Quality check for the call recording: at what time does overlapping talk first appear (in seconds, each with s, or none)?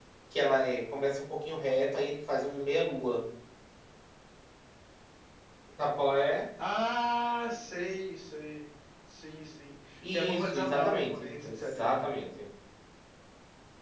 10.0 s